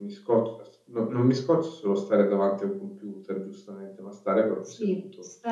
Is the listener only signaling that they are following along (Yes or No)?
No